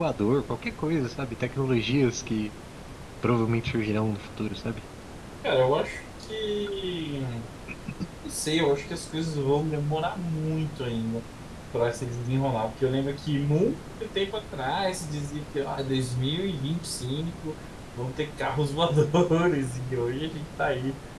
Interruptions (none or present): none